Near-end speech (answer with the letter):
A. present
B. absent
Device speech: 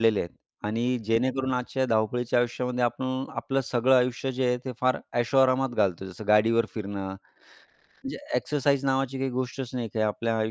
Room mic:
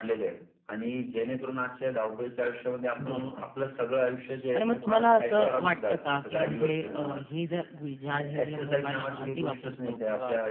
A